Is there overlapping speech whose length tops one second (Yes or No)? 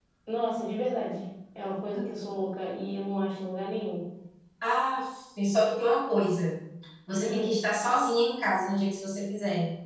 No